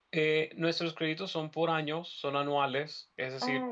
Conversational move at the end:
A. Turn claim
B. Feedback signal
B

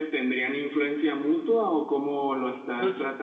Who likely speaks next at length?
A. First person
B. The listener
B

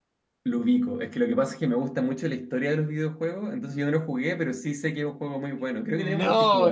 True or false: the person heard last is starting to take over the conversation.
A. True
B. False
A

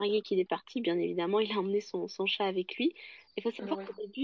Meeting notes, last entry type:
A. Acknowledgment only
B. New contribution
A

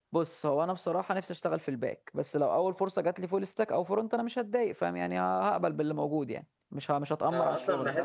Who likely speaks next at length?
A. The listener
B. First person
A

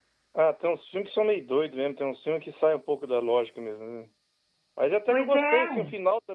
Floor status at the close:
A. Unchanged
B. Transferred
A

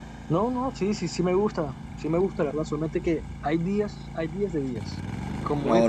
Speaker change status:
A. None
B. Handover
A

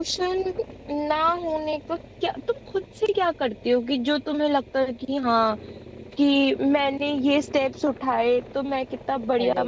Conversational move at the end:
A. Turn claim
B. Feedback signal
B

